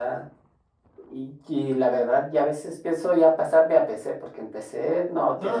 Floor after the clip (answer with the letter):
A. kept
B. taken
B